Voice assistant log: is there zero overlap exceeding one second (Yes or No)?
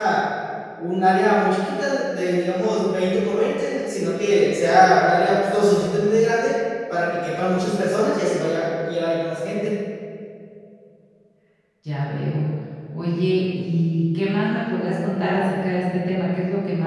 Yes